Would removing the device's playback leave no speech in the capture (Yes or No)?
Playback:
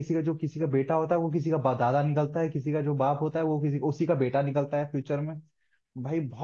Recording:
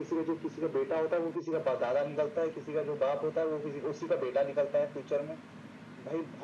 Yes